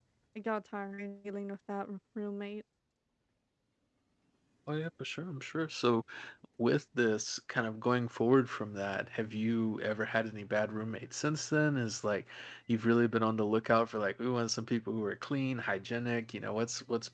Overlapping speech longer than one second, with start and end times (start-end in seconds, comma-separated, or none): none